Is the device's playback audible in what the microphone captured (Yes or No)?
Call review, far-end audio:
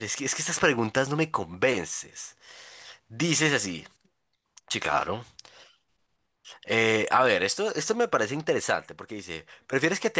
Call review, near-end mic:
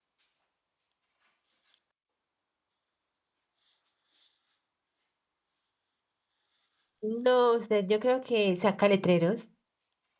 No